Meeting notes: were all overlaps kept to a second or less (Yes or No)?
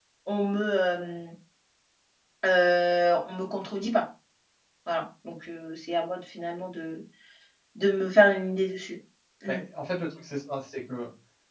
Yes